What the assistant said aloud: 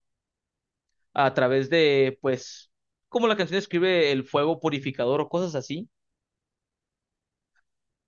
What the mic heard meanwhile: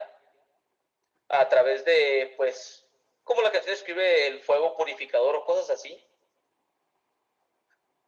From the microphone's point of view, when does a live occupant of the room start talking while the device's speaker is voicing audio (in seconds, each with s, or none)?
none